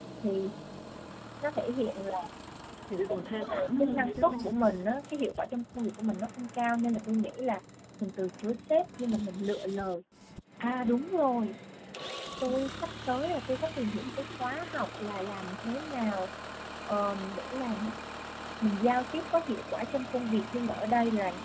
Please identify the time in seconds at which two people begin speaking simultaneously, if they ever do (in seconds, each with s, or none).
3.4 s